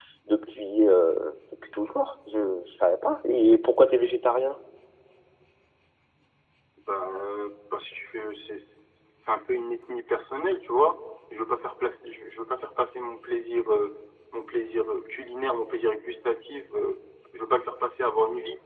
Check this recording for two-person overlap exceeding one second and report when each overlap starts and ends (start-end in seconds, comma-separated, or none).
none